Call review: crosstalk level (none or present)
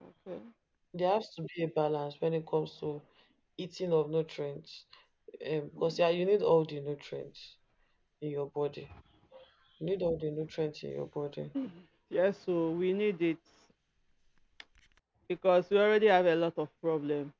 none